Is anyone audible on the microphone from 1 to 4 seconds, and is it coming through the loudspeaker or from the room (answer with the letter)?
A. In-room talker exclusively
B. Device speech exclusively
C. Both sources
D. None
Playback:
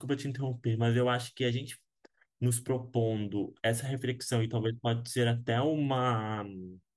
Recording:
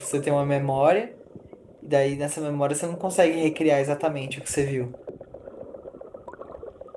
A